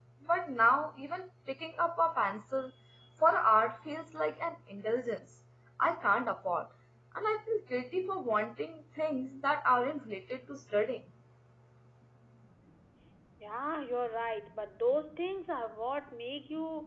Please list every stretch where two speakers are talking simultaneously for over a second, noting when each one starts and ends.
none

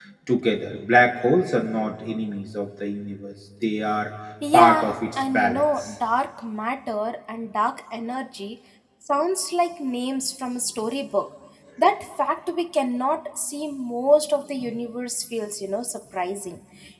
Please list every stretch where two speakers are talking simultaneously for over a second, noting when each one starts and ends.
4.5-5.9

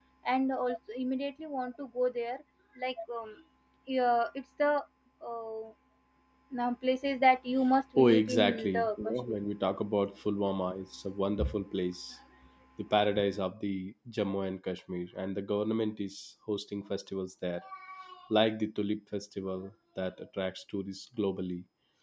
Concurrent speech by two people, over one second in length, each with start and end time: 8.0-9.4

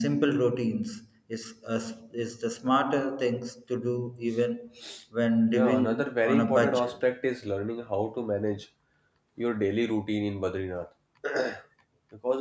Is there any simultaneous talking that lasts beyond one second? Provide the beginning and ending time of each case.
5.5-7.0

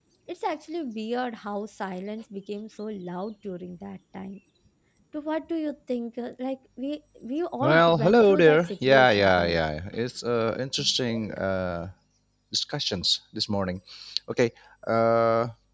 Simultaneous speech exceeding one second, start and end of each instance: 7.6-9.6

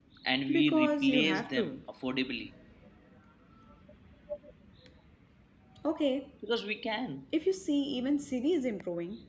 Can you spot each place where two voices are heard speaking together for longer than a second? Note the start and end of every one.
0.5-1.8

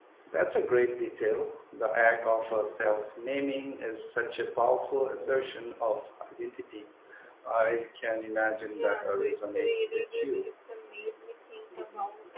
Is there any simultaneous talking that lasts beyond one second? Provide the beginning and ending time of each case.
8.8-10.5

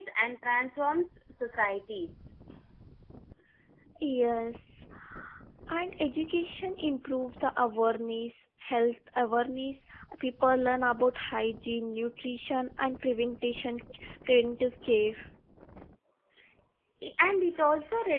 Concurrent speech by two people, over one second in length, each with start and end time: none

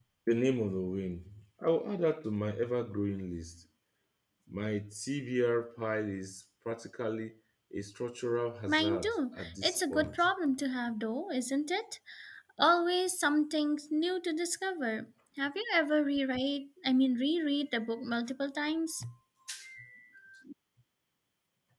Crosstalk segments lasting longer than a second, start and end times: 8.7-10.3

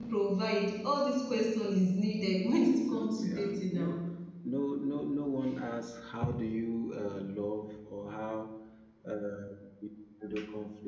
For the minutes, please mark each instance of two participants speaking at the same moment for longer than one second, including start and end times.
2.7-3.9

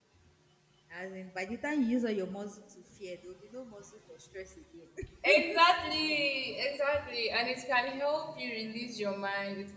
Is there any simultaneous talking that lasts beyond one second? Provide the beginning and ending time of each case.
none

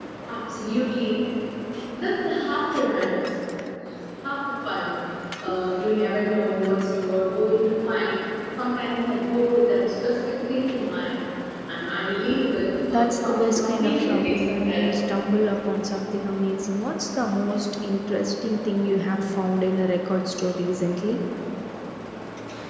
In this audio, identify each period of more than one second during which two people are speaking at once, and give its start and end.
12.9-14.9

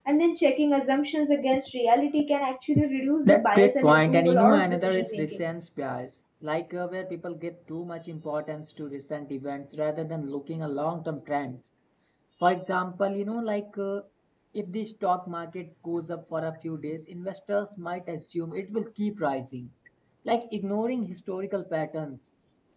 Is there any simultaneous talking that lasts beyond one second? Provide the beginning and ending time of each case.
3.2-5.4

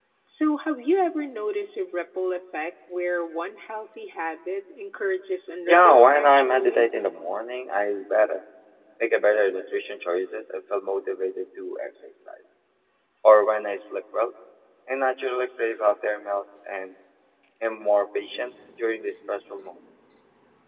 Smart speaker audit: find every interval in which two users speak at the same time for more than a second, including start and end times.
5.6-6.8

